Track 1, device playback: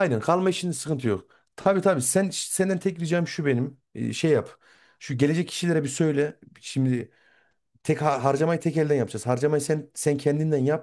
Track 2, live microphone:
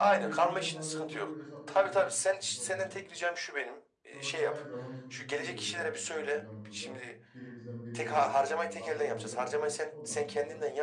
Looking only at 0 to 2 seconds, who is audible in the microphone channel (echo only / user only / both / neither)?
both